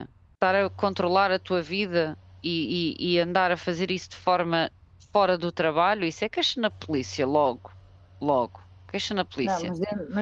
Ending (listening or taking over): taking over